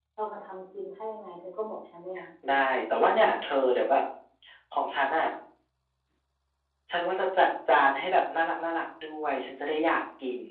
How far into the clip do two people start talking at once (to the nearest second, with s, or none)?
none